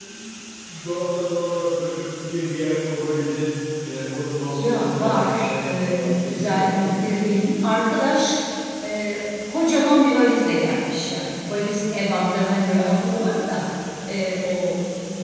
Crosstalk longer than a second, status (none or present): present